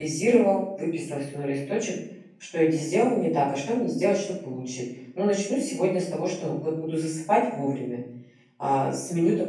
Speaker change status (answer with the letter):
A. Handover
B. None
B